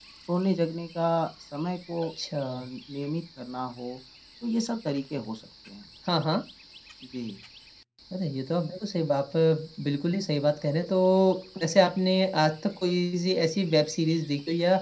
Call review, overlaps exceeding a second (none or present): none